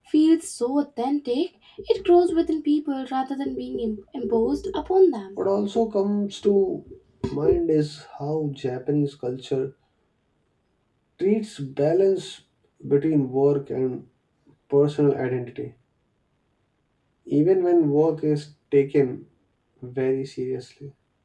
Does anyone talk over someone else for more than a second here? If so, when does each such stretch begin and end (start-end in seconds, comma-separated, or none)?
none